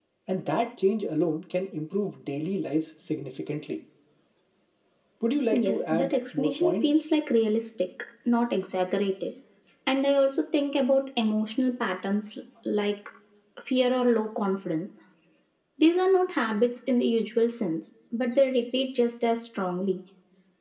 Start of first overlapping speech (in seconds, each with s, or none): 5.5 s